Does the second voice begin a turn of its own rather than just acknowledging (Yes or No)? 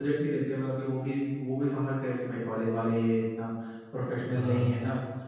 No